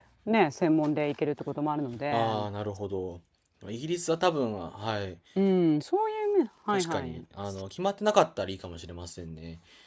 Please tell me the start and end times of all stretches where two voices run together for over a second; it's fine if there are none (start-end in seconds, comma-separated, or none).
none